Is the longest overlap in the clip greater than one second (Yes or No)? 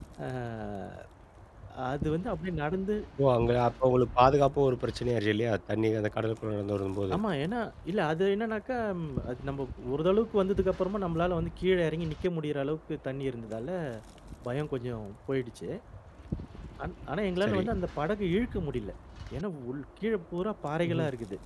No